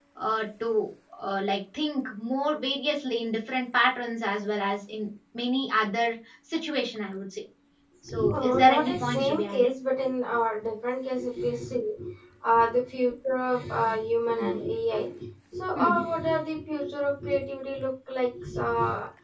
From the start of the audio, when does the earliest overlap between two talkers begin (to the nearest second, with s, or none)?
8 s